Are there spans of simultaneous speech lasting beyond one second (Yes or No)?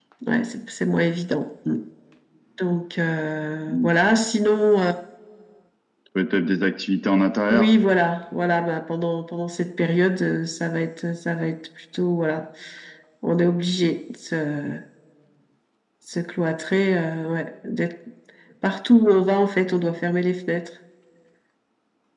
No